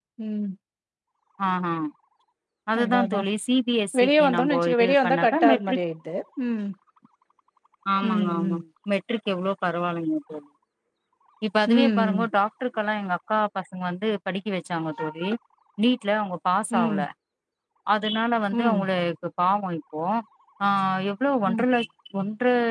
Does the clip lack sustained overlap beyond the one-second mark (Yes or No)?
No